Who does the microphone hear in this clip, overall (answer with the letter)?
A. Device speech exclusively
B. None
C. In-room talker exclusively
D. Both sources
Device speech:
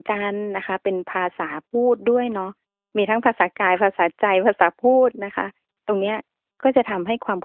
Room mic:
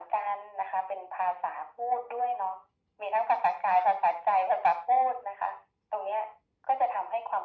A